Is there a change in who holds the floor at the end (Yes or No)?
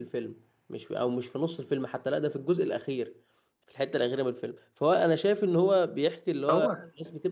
No